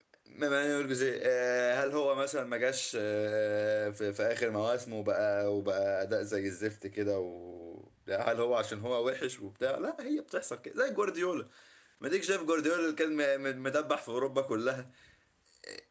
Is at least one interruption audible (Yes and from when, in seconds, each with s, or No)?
No